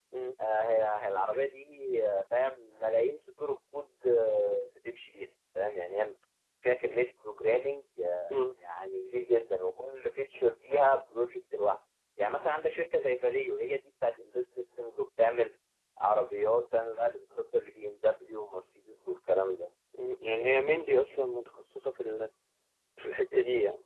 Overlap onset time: none

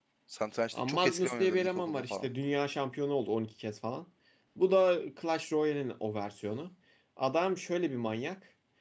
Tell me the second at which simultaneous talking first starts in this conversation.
0.7 s

